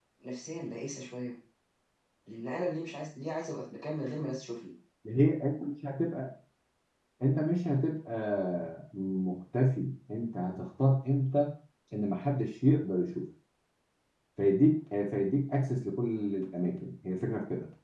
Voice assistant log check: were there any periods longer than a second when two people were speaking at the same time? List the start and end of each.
none

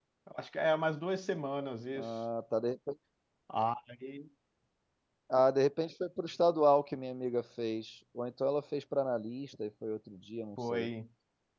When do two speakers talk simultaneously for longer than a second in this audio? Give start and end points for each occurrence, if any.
none

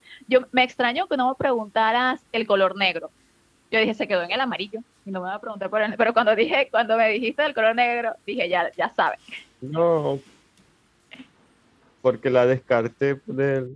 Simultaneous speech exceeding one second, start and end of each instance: none

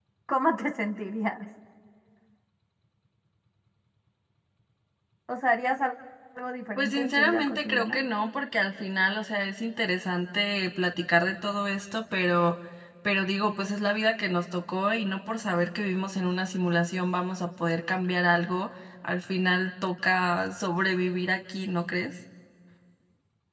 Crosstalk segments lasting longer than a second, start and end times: 6.8-8.0

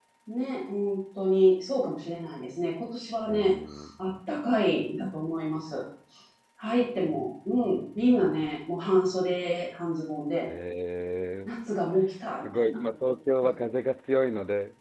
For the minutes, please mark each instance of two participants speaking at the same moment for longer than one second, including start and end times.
none

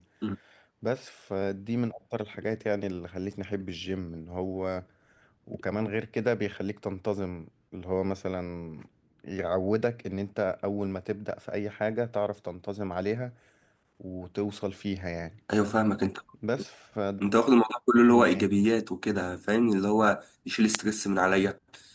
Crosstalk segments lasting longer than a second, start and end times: none

